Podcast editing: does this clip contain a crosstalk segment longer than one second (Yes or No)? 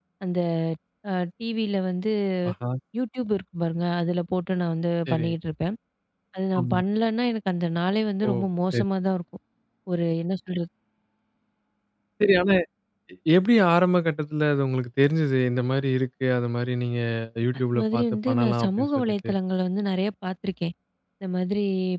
Yes